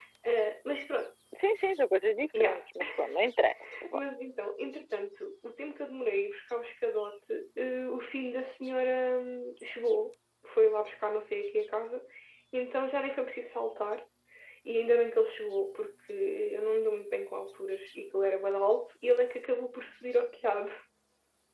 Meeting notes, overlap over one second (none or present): none